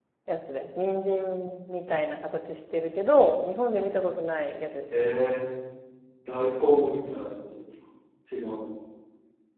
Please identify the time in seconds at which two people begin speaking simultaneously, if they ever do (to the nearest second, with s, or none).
none